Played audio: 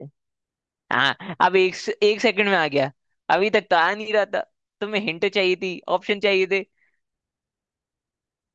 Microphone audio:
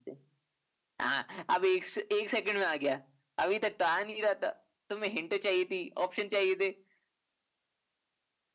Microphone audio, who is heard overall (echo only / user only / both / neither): echo only